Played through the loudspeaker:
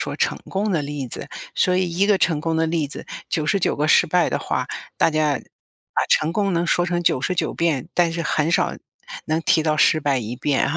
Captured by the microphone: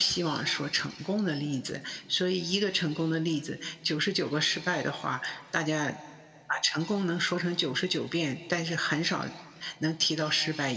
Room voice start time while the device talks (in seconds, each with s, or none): none